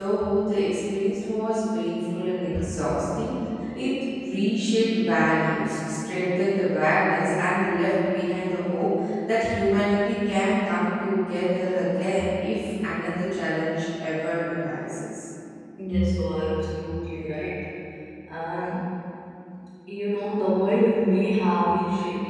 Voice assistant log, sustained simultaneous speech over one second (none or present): none